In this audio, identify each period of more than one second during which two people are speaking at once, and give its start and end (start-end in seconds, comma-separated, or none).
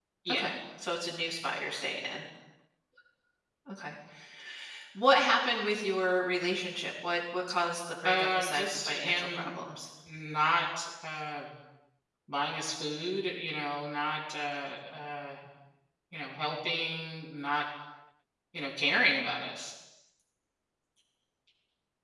8.0-9.7